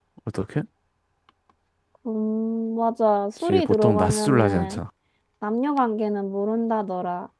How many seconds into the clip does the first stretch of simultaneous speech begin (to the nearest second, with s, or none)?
3 s